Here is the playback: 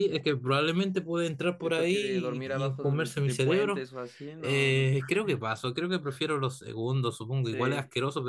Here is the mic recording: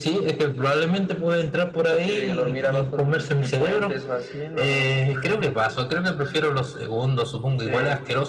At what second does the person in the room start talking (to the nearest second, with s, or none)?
none